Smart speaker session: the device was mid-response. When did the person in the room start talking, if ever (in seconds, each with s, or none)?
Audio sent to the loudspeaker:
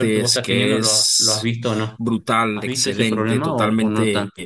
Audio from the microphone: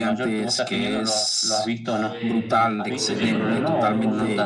2.0 s